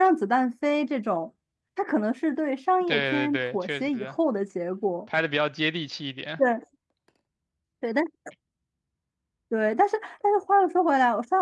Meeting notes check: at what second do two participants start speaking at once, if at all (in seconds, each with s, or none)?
2.8 s